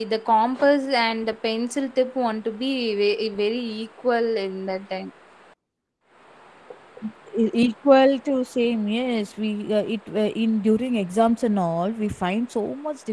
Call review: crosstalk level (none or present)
none